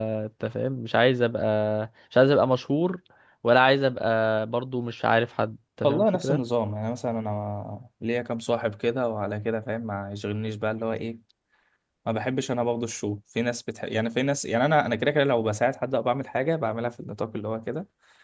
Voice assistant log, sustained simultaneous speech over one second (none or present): none